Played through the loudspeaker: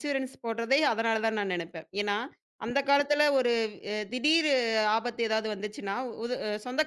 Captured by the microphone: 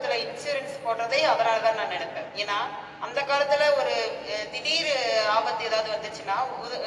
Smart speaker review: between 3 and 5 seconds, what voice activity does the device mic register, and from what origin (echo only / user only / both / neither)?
echo only